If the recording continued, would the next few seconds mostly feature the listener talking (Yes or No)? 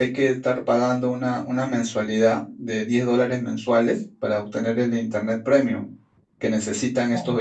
No